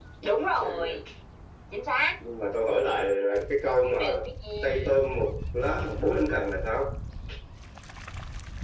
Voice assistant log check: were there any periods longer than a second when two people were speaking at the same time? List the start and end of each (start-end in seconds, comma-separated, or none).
none